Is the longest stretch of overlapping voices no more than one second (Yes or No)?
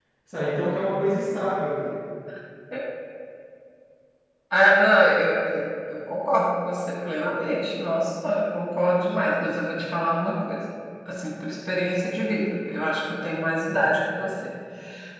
Yes